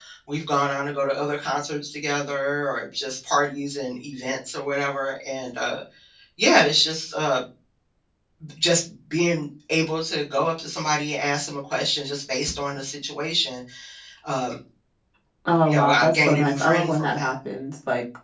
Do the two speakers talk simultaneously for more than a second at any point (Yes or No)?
Yes